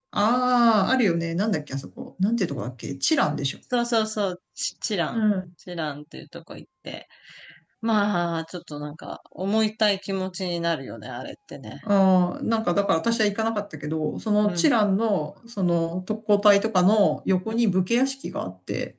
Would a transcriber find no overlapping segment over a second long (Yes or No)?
Yes